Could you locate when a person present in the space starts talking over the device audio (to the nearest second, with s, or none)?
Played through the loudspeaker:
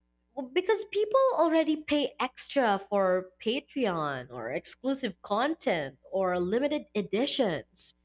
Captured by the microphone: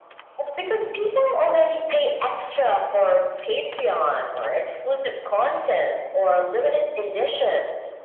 none